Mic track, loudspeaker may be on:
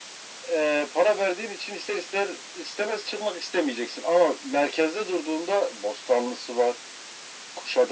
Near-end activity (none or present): none